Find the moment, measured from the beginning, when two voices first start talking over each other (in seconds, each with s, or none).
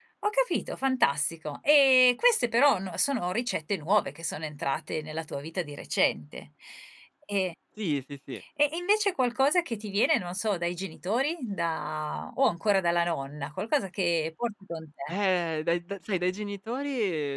none